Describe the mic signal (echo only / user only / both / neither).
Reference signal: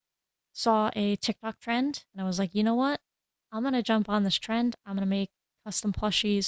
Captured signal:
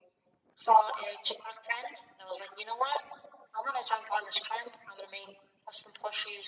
echo only